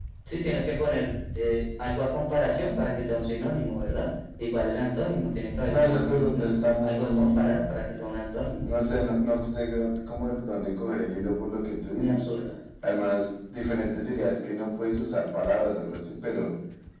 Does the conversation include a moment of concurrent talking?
Yes, from 5.7 s

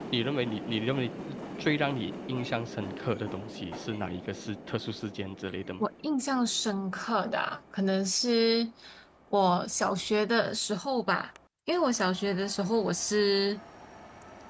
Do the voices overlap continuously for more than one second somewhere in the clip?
No

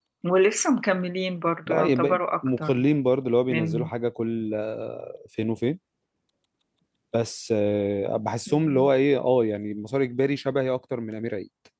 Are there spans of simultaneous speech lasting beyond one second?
Yes, from 1.7 s

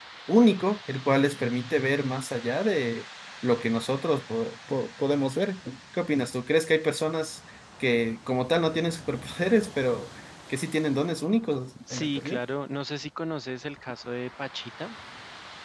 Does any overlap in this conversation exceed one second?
No

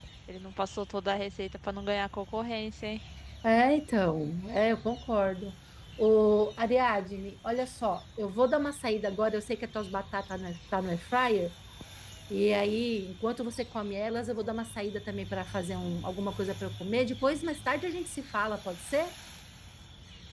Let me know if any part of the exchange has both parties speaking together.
No

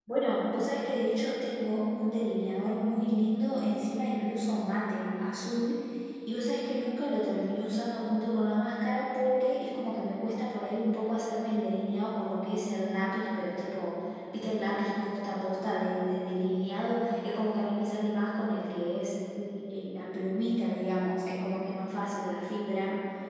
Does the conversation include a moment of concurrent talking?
No

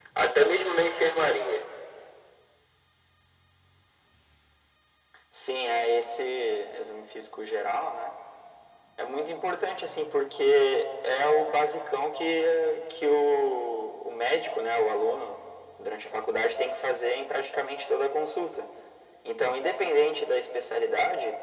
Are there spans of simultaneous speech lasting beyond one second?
No

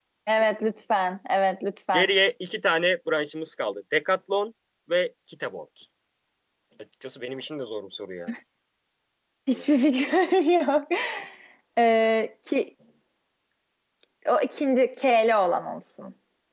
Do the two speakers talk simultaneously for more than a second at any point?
No

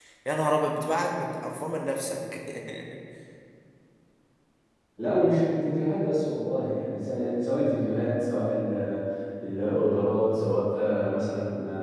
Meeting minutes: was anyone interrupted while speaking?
No

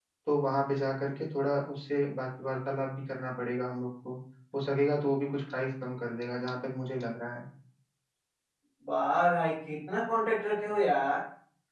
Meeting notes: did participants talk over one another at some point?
No

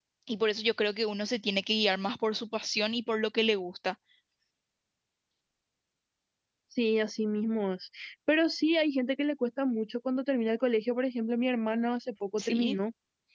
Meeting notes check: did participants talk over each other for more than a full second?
No

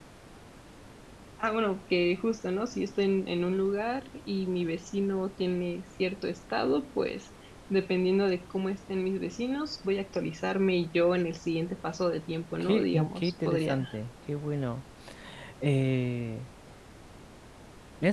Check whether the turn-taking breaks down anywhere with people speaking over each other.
Yes, from 12.6 s

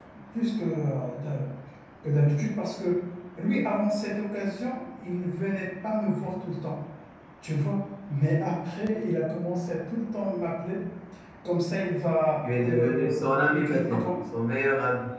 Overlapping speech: Yes, from 12.4 s

